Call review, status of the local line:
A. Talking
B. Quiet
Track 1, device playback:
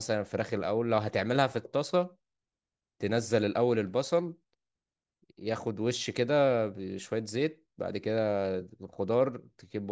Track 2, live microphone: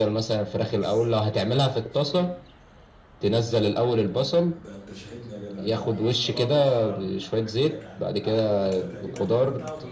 A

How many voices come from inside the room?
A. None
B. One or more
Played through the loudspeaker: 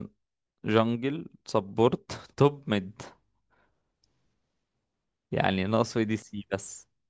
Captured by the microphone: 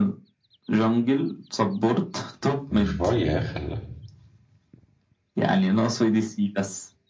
B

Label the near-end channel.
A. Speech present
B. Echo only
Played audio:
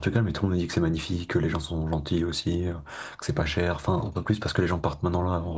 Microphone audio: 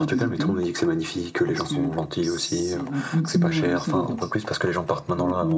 A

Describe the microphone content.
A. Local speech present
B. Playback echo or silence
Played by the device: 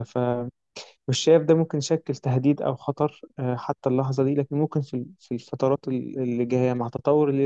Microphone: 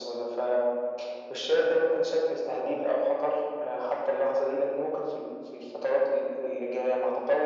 B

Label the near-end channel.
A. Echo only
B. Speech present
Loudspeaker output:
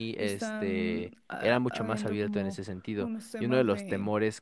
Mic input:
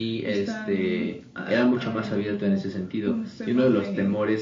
A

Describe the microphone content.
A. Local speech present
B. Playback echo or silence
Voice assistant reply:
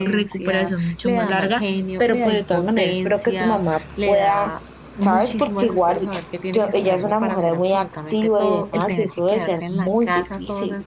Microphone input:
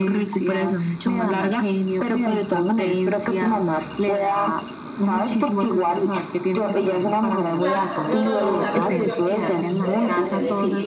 A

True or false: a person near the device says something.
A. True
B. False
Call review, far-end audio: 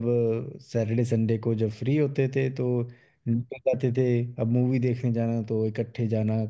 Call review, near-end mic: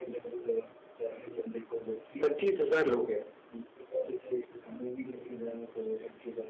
A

